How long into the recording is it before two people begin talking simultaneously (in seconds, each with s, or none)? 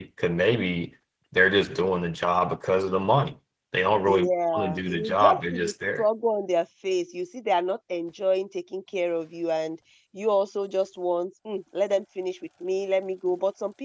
4.0 s